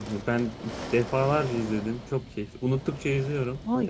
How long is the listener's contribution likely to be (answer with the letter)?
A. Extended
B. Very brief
A